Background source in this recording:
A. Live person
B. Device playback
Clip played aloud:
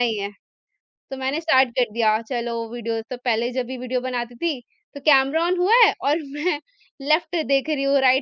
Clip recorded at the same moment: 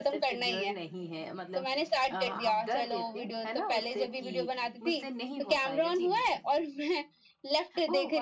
A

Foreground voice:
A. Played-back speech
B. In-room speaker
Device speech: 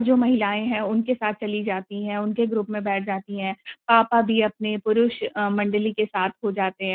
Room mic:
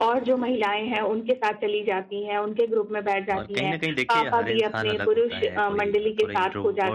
A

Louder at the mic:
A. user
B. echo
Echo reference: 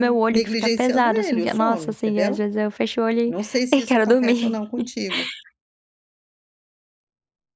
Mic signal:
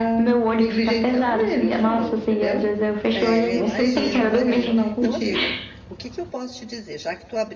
B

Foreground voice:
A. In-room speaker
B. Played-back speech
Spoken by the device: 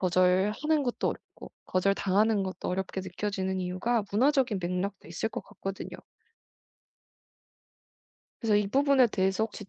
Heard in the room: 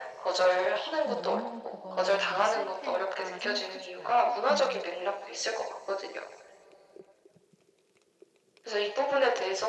B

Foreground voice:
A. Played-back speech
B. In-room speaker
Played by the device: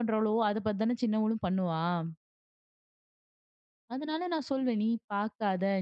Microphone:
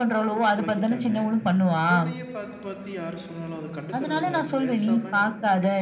A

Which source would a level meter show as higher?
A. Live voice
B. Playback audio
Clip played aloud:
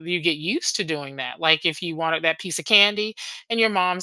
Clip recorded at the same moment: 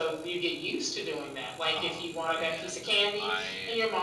B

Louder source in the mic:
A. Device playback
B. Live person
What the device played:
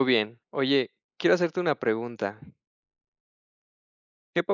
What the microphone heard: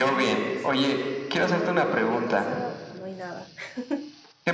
A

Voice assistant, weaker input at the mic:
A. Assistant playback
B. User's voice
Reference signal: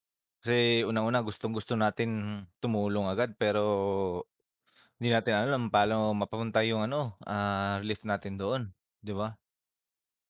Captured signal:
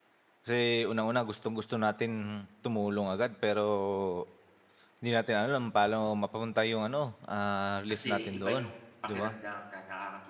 B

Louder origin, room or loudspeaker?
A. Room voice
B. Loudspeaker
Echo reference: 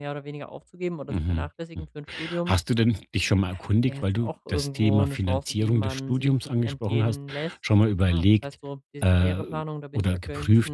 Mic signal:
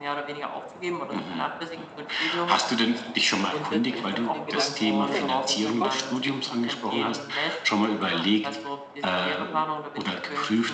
B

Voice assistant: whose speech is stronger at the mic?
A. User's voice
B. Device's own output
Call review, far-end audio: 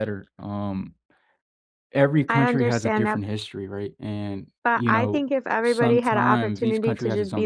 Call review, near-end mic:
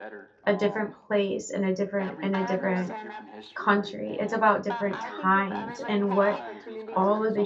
A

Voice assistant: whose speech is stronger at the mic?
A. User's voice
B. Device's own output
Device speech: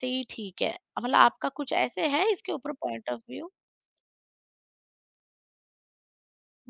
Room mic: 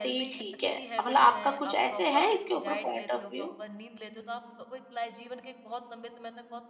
B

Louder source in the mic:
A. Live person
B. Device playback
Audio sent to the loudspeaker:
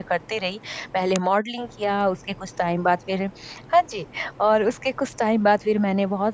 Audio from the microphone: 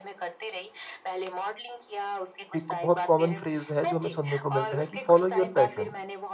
A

